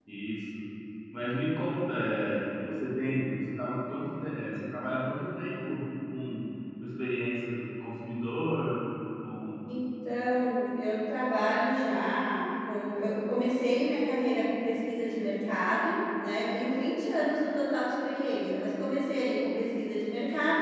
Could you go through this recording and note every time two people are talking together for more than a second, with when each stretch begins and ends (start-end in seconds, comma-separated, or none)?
none